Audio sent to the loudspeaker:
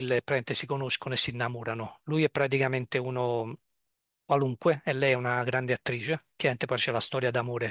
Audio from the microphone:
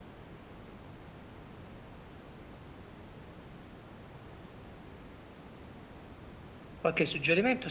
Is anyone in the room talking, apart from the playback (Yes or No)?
Yes